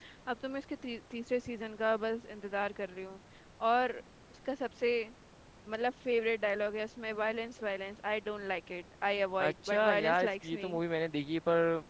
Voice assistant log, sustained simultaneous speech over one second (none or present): present